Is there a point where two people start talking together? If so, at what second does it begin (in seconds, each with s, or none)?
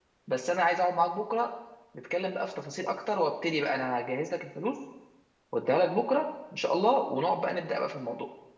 none